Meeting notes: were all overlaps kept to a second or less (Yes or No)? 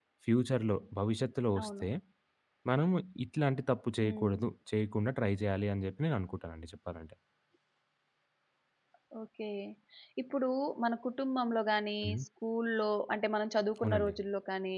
Yes